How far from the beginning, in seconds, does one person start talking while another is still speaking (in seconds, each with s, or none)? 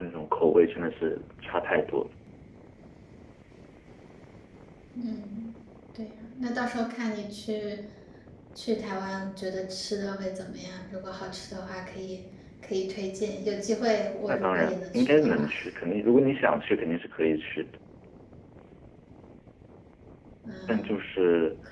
14.3 s